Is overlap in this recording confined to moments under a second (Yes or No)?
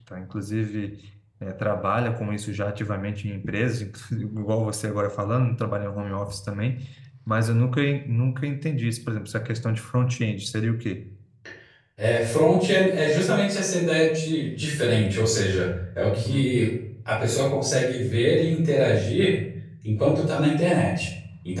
Yes